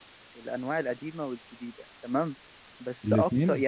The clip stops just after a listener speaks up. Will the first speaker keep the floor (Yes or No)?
Yes